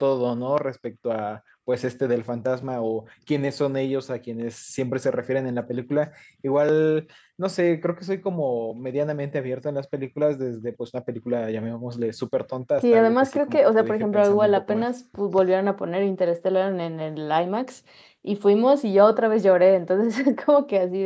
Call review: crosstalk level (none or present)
present